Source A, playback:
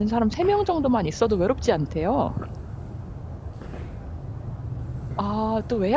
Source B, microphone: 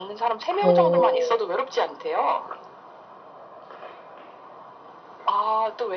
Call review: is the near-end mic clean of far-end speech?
No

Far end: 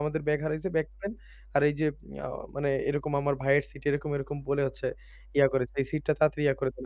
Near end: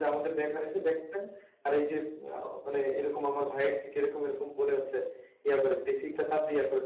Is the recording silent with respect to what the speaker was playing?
No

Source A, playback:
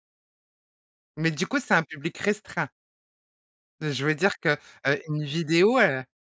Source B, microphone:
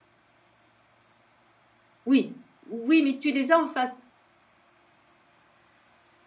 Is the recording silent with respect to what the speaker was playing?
Yes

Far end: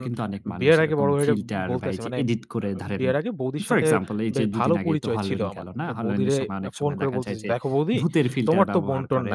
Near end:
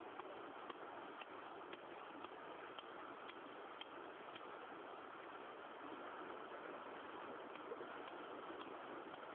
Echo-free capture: Yes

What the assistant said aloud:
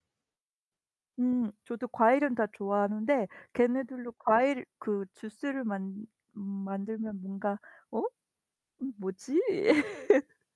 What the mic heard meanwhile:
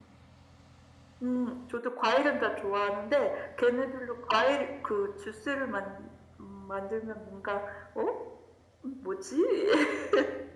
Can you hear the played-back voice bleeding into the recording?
Yes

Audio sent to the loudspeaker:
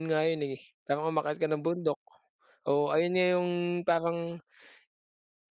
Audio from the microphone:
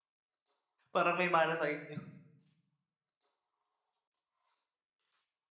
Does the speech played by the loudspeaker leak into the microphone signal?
No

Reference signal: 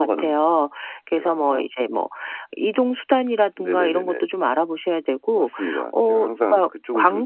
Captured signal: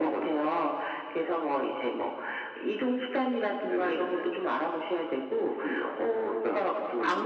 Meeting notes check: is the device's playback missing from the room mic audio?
No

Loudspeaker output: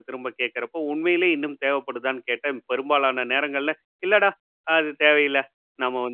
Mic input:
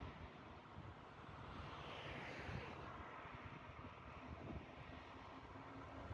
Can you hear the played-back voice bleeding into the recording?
No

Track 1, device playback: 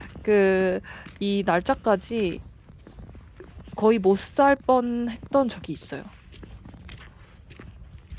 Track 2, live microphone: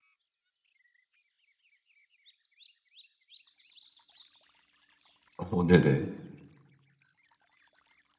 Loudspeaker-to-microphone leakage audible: No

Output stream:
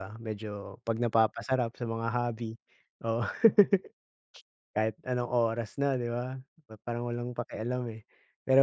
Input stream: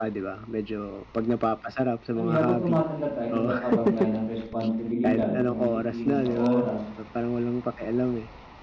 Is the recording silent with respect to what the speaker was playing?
No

